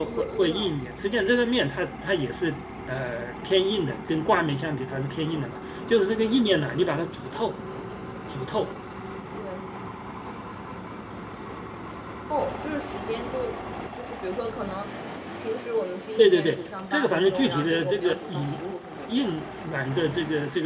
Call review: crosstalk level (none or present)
present